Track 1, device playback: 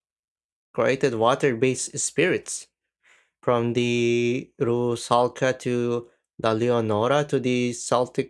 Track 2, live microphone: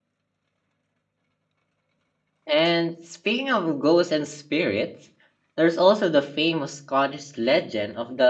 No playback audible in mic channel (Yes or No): Yes